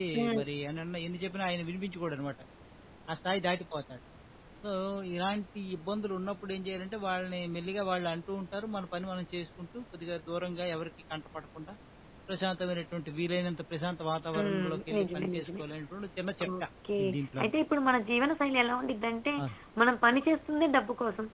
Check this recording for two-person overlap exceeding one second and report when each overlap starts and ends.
14.4-15.6

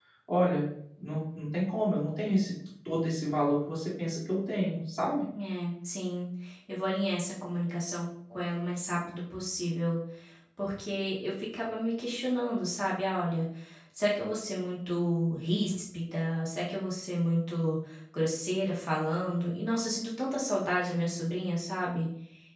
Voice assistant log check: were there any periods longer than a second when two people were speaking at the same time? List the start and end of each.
none

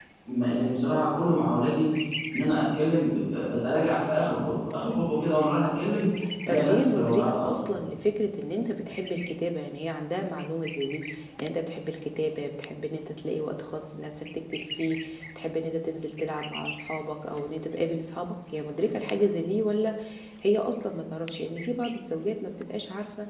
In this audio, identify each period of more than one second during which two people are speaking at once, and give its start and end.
6.5-7.7

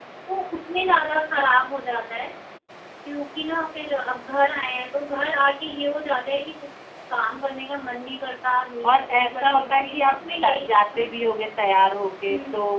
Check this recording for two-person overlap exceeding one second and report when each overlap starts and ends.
8.8-11.1

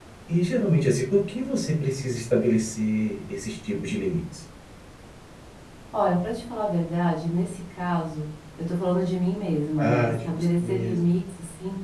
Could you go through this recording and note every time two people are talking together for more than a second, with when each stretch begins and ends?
9.8-11.0

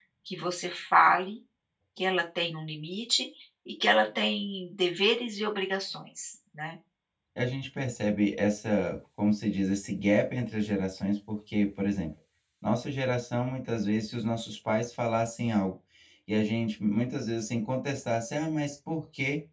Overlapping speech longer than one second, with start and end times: none

